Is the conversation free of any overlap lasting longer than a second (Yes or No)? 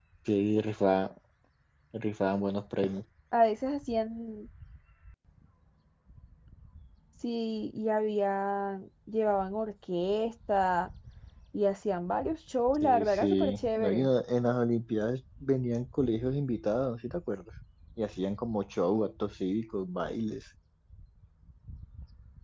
No